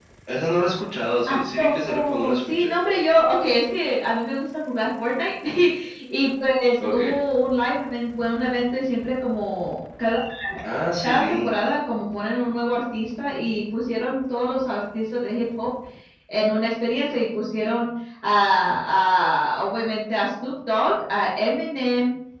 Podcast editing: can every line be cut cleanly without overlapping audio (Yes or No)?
No